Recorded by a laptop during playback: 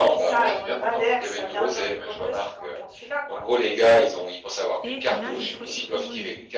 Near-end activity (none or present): present